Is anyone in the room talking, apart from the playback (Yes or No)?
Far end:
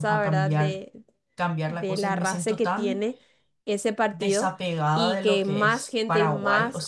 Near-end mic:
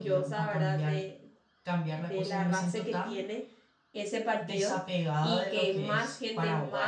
No